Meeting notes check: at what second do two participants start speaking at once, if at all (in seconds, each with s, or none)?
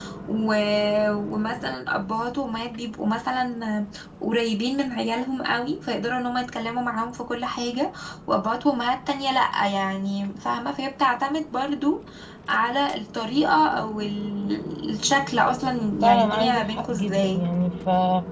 16.0 s